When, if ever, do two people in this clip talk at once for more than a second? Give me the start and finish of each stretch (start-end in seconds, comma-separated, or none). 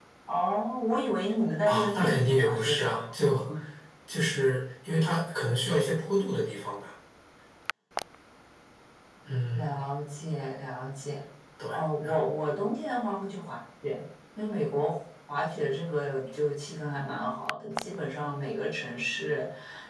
1.7-3.0